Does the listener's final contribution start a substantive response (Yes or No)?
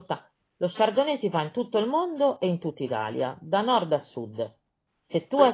No